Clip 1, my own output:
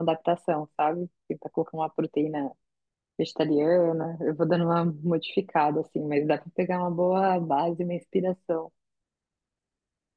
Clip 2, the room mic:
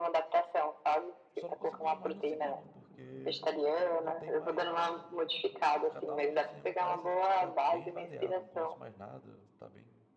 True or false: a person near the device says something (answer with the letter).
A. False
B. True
B